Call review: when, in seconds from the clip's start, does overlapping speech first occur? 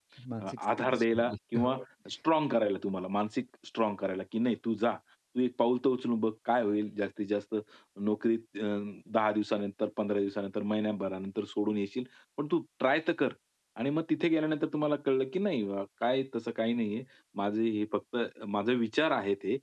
1 s

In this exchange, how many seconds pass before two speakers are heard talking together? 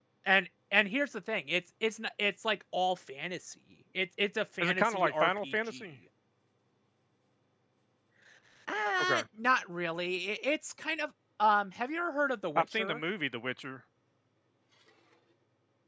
5 s

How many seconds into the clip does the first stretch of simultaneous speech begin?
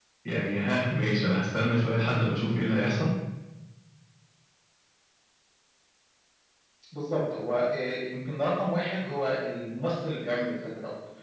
none

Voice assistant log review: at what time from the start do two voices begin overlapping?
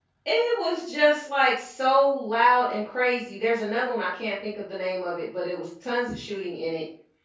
none

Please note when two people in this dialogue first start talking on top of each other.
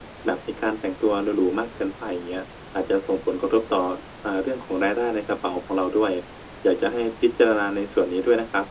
none

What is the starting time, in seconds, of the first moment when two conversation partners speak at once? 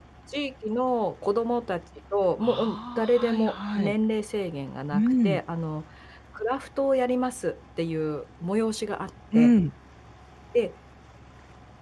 2 s

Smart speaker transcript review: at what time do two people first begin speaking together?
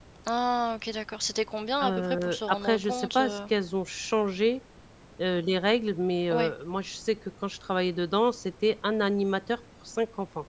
2 s

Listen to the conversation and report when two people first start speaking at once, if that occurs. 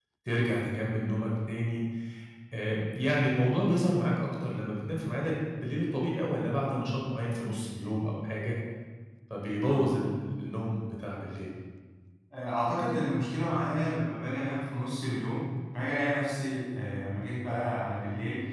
none

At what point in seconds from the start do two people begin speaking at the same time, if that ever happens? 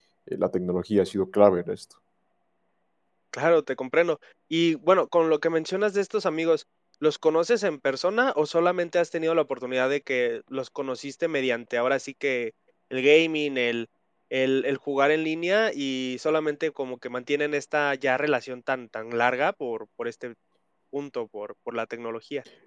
none

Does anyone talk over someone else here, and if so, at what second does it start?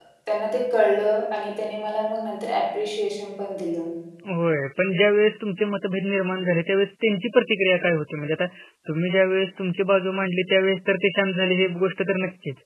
none

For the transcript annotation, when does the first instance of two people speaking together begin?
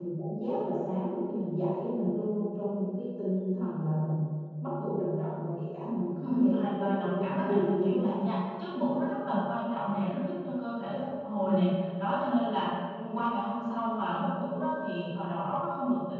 6 s

